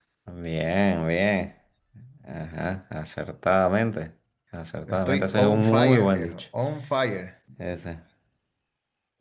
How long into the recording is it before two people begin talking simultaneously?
4.9 s

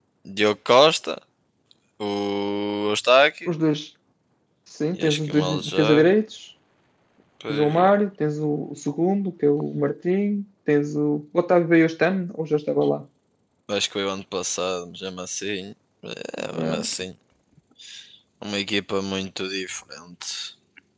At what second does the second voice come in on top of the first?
4.9 s

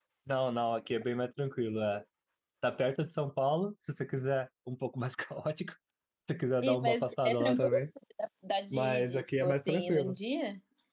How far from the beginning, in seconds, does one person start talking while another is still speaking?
6.6 s

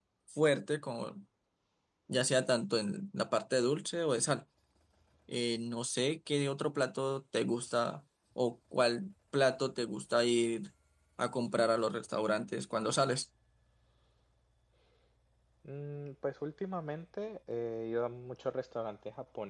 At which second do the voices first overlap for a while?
none

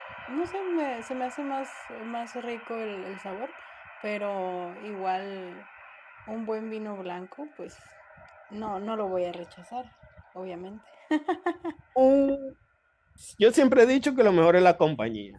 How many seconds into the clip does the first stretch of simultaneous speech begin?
none

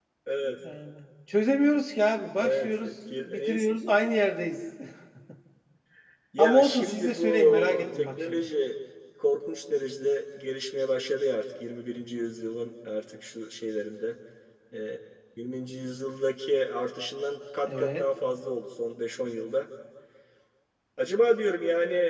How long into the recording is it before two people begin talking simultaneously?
2.4 s

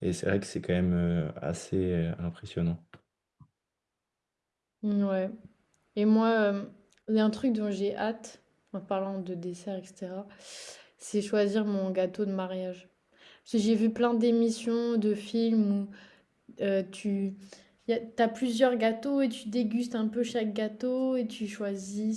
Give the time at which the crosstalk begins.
none

